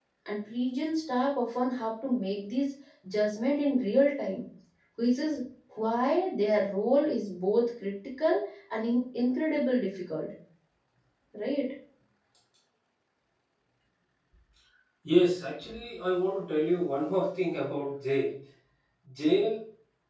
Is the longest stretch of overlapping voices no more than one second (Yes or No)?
Yes